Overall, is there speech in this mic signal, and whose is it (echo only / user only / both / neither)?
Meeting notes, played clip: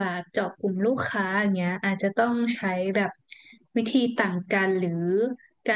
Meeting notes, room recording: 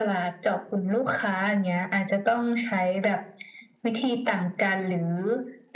echo only